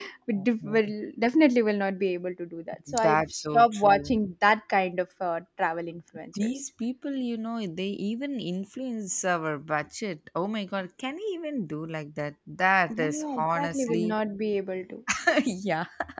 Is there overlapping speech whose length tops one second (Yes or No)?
Yes